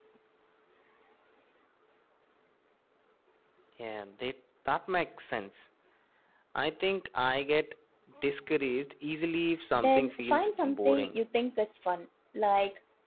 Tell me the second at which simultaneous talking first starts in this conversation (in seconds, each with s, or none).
9.7 s